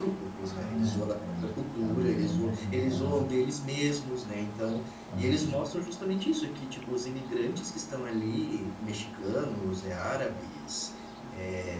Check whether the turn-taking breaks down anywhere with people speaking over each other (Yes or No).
Yes